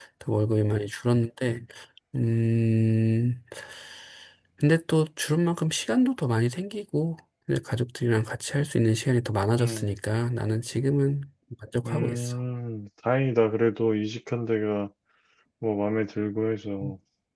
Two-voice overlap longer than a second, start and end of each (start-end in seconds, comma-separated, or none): none